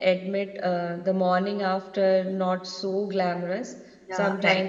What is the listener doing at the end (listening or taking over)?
listening